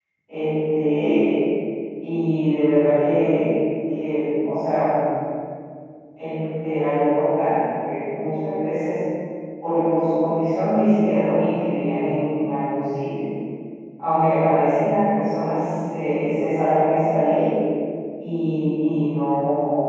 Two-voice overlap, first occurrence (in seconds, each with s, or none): none